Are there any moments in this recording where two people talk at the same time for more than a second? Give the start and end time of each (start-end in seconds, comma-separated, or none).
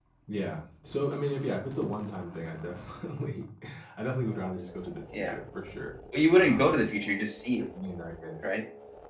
none